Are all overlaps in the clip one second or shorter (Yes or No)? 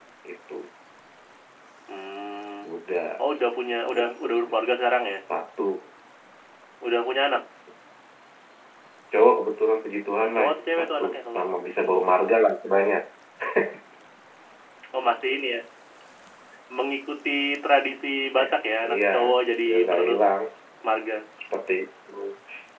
No